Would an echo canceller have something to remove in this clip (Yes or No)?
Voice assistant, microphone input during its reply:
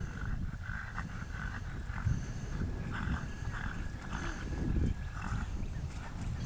No